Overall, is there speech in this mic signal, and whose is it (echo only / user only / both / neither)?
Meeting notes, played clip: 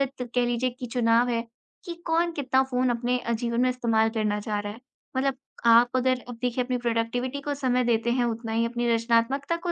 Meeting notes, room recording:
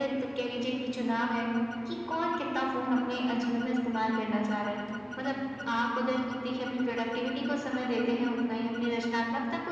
echo only